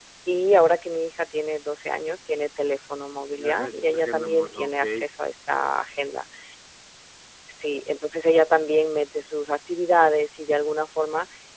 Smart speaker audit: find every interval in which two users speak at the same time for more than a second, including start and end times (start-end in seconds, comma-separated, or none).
3.4-5.1